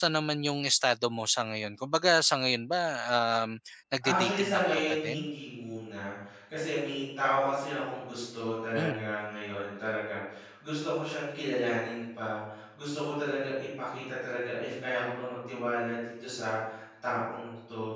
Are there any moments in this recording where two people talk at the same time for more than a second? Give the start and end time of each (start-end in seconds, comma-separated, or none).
4.0-5.3